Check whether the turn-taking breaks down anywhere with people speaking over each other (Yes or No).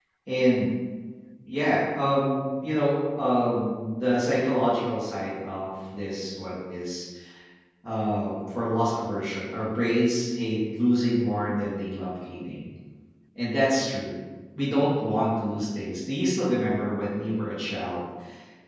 No